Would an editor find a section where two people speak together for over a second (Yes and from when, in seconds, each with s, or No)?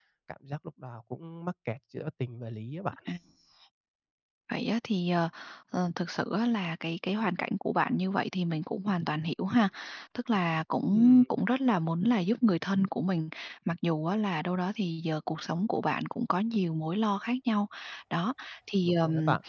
No